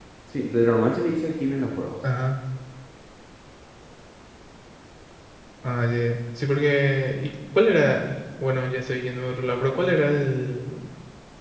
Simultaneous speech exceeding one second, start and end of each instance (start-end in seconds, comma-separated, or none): none